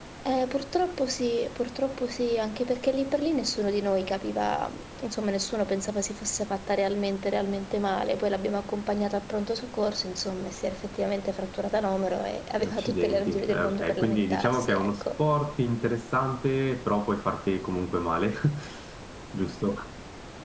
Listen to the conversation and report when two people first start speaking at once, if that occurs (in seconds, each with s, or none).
12.6 s